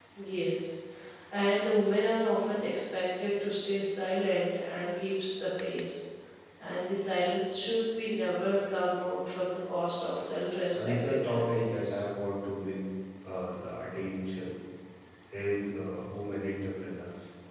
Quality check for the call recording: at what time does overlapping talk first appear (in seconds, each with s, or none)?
10.7 s